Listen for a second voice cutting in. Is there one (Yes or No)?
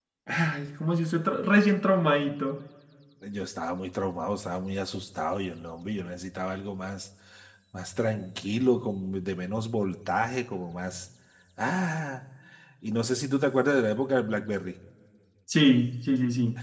No